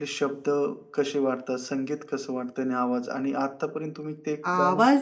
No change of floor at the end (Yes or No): No